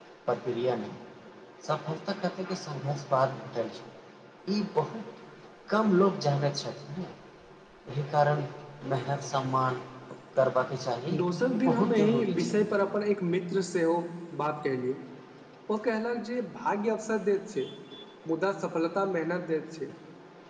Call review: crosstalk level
present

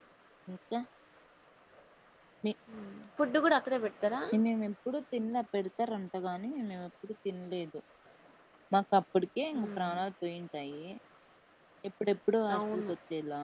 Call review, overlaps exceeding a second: none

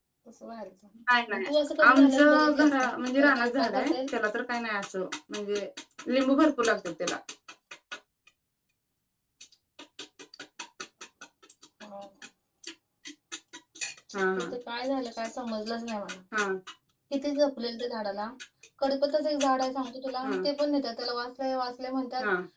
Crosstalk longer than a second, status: present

